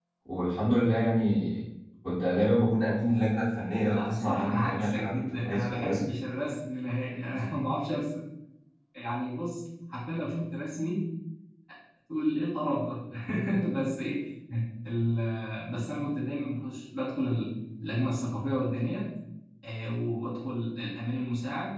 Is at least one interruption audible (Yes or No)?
Yes